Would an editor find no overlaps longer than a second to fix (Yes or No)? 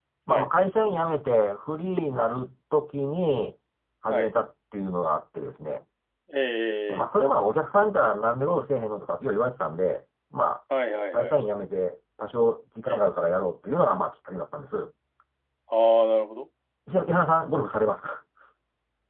Yes